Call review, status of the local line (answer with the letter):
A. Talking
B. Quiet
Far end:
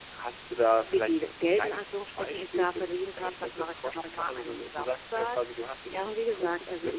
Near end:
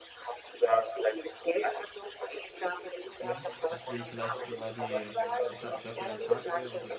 A